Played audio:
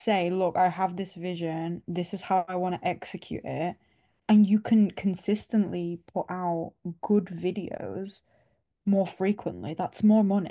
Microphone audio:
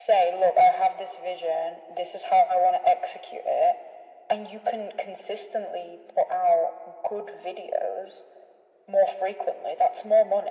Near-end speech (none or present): none